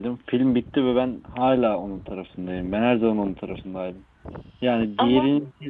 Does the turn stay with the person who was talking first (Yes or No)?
Yes